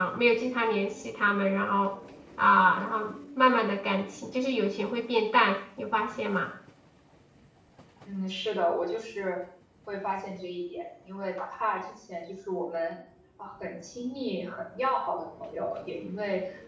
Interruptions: none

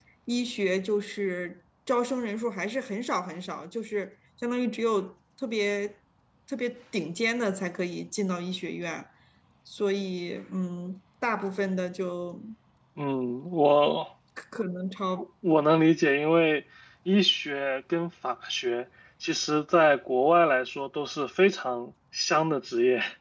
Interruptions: none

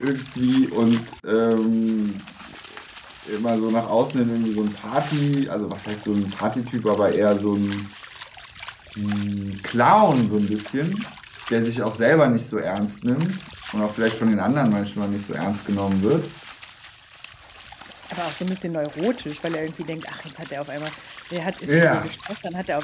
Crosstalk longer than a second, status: none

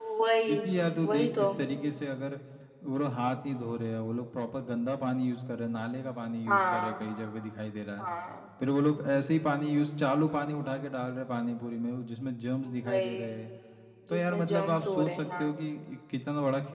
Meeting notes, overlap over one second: present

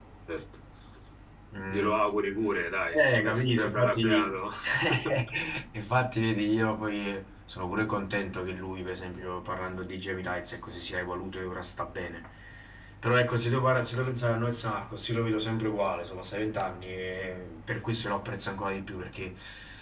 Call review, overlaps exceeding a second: present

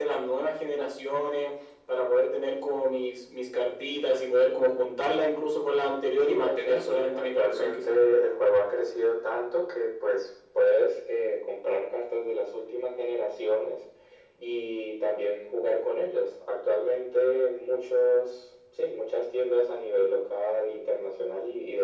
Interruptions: present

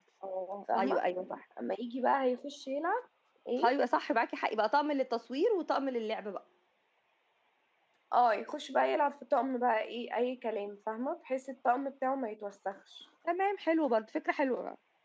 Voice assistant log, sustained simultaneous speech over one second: none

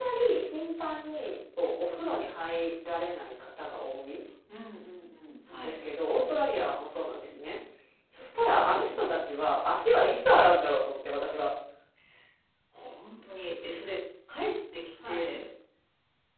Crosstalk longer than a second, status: none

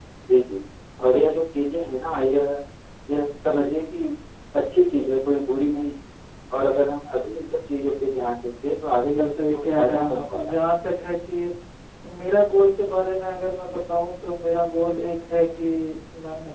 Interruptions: present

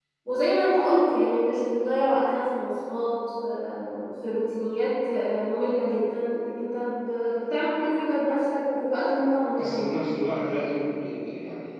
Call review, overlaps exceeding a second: none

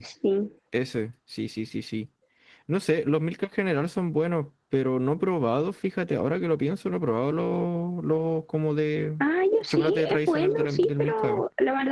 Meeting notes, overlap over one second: present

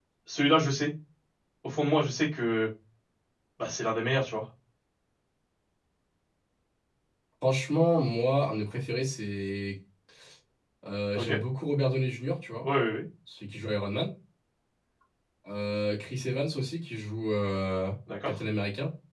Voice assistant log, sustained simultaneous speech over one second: none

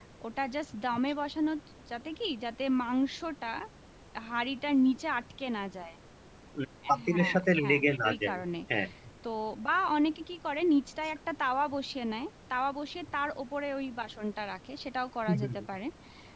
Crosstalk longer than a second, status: present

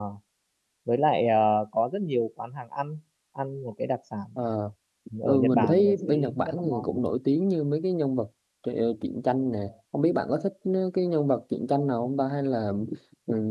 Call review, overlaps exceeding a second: present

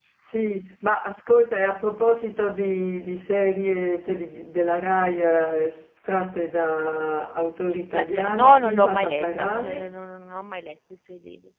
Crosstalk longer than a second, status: present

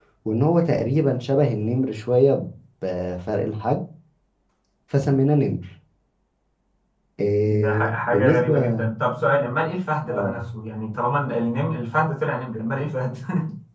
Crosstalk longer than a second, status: present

